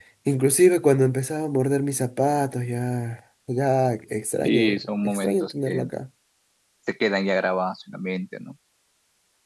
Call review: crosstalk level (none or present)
present